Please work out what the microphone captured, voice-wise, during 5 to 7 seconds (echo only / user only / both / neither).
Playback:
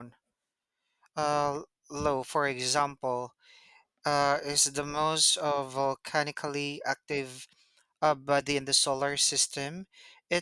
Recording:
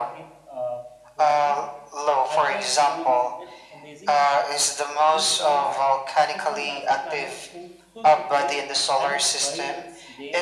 both